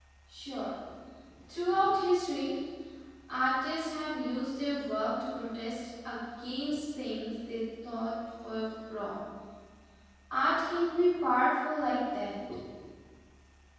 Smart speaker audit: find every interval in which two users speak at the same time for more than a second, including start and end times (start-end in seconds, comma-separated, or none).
none